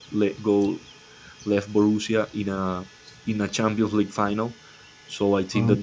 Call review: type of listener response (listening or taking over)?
listening